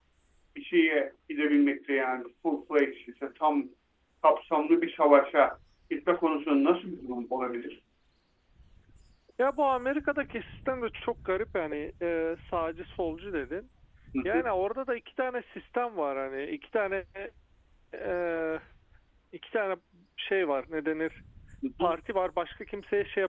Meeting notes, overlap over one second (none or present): none